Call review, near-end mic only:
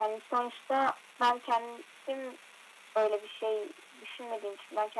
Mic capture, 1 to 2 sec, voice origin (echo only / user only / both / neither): echo only